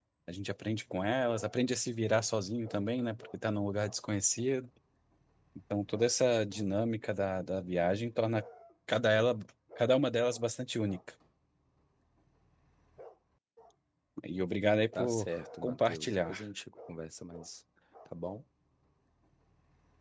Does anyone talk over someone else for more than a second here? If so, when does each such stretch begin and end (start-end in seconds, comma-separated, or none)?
14.9-16.4